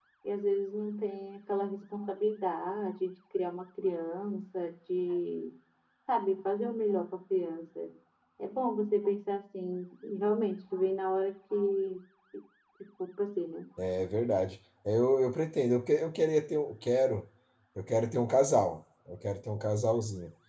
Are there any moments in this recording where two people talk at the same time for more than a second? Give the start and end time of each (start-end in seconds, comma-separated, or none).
none